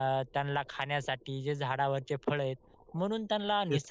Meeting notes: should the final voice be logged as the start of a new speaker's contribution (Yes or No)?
No